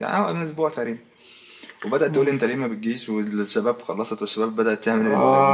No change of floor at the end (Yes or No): Yes